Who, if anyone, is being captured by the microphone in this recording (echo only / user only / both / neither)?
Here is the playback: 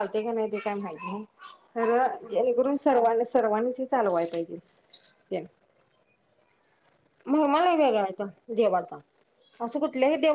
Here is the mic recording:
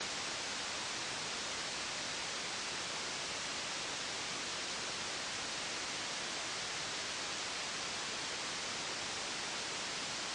neither